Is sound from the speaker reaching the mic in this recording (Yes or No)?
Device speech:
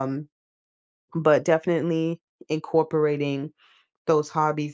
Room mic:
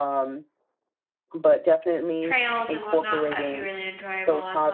Yes